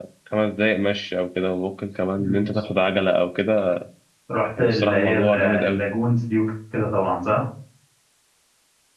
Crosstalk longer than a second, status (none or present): present